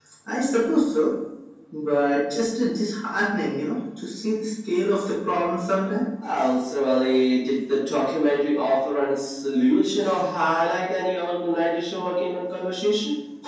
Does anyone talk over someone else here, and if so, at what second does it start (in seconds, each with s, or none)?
none